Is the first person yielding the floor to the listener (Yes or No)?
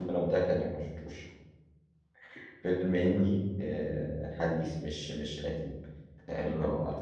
No